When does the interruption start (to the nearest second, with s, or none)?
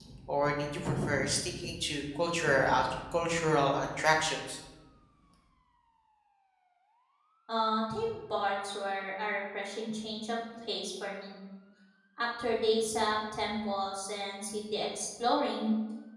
none